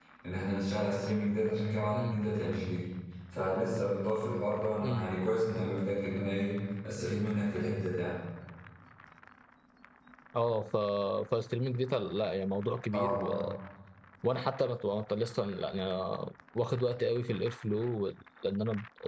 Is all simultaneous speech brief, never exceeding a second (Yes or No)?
Yes